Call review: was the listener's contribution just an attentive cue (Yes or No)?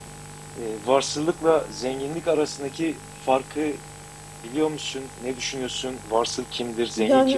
No